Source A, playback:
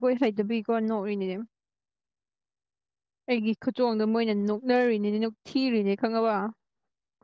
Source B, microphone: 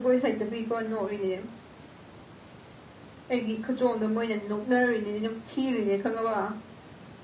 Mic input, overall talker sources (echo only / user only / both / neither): echo only